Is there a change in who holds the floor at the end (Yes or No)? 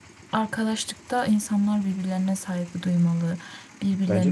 Yes